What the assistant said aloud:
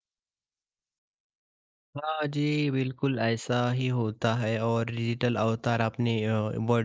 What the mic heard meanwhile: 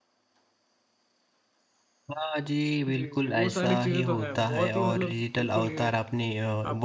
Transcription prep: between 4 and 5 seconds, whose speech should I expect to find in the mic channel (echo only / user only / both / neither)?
both